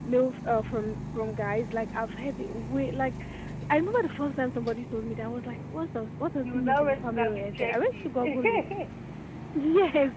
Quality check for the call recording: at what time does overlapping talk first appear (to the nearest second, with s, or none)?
6 s